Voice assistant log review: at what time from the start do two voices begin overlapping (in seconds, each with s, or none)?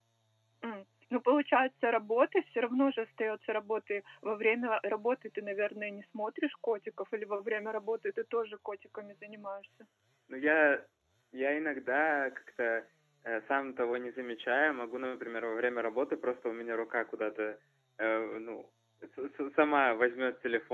none